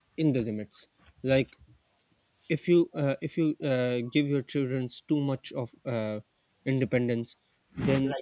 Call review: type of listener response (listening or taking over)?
listening